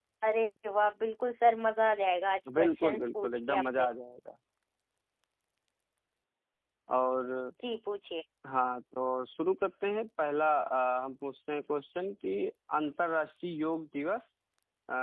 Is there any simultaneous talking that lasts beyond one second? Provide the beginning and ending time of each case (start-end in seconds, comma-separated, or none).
2.6-3.9